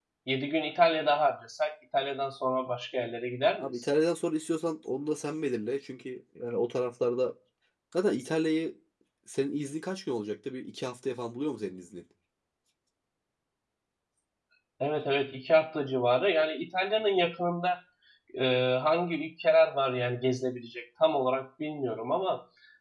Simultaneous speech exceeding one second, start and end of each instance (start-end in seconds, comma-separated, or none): none